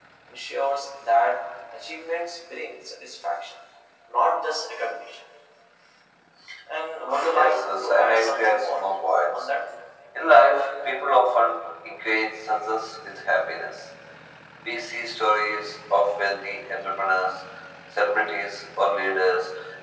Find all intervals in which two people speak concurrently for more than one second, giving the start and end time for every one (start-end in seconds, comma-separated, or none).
7.3-8.8